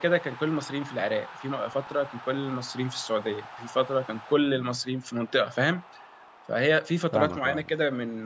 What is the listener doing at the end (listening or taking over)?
listening